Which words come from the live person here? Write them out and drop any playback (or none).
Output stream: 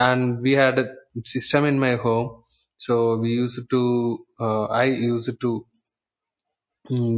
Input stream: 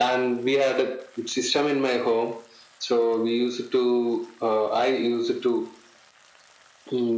none